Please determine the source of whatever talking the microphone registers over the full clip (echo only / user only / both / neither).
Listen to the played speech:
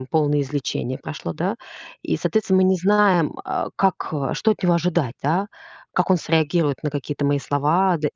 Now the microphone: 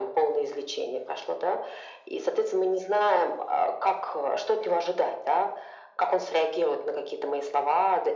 echo only